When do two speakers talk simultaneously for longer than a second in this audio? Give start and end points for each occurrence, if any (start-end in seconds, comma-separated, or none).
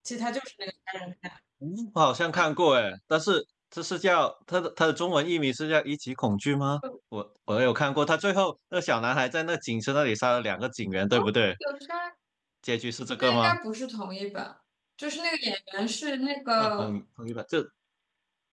none